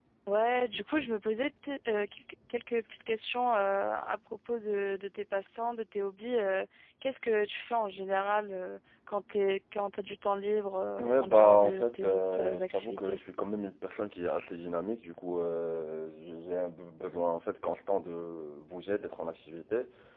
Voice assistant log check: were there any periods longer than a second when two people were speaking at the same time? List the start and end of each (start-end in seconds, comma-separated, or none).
11.0-13.2